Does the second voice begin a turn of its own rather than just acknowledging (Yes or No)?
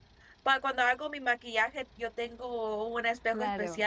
No